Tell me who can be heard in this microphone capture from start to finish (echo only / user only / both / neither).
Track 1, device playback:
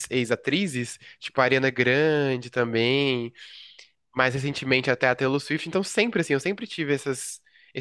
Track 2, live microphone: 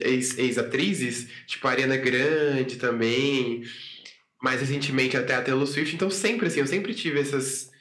echo only